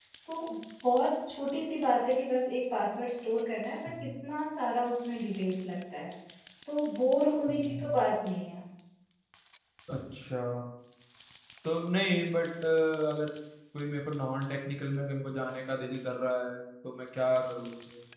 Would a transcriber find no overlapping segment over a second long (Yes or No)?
Yes